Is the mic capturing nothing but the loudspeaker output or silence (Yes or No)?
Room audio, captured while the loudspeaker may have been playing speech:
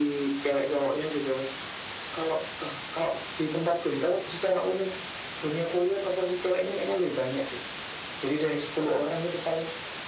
Yes